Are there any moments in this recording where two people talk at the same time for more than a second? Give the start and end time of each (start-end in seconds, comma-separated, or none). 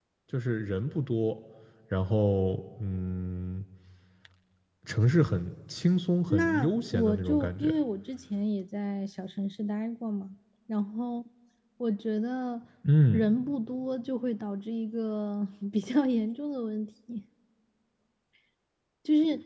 6.3-7.7